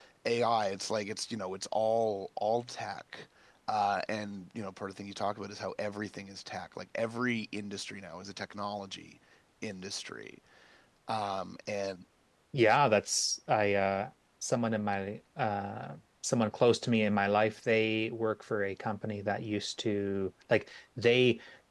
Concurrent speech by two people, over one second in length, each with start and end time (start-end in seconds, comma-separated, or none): none